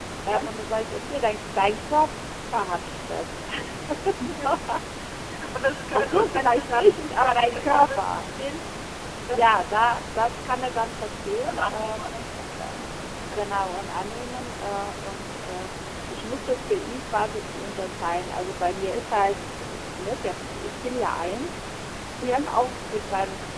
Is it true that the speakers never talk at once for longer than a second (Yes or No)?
No